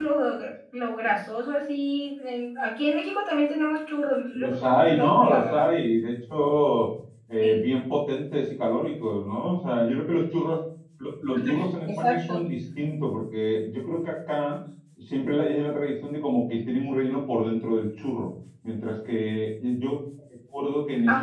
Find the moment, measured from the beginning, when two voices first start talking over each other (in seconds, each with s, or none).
4.3 s